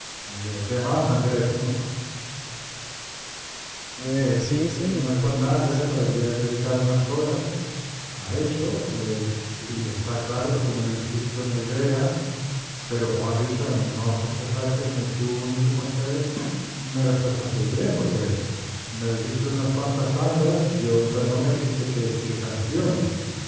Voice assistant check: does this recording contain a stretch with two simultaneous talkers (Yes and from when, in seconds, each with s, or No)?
Yes, from 4.2 s